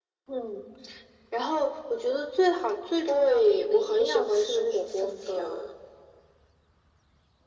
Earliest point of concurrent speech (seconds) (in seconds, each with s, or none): 3.0 s